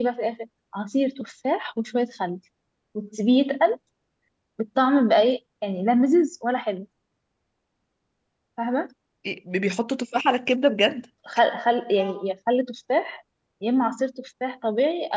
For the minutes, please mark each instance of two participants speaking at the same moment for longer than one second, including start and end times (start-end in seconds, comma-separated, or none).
none